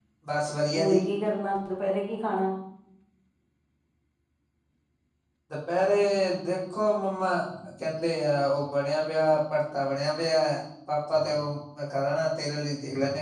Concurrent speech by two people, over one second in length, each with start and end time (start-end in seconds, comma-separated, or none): none